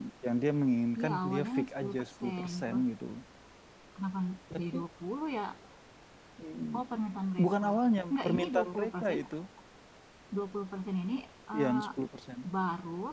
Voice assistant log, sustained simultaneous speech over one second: present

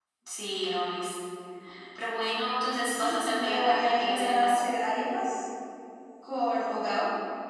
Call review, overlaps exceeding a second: present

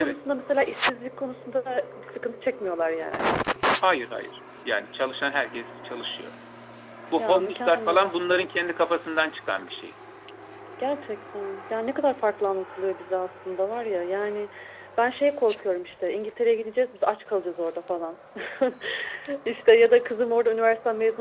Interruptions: present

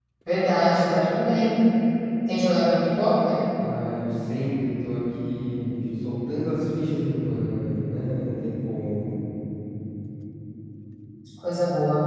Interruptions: none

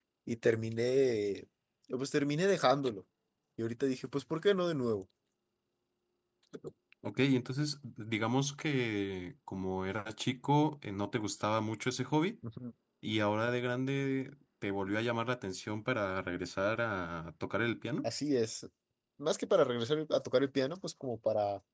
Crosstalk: none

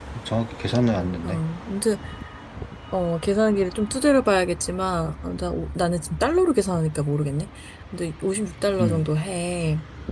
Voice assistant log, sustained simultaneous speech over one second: none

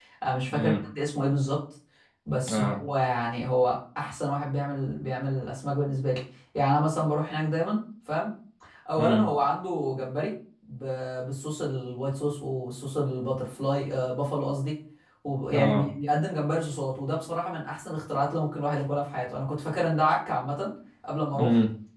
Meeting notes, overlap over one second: none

